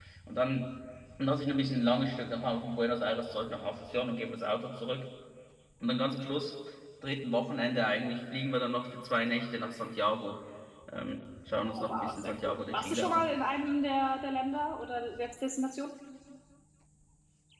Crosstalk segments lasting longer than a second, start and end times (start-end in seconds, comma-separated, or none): 11.6-13.3